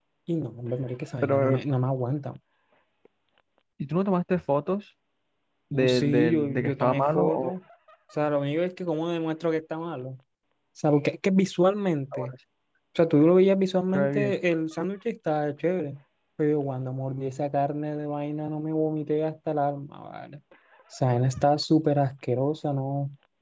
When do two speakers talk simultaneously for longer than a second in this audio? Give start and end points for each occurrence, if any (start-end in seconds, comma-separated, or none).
5.7-7.5